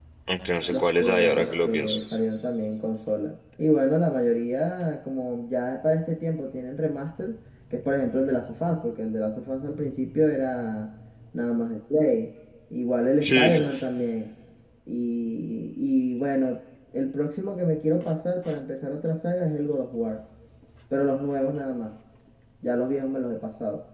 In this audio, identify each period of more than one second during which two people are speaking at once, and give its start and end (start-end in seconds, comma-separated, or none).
0.7-2.0